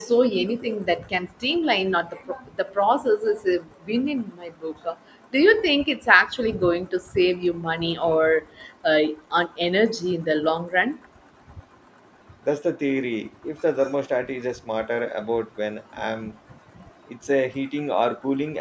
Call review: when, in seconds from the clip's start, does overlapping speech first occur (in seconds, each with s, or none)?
none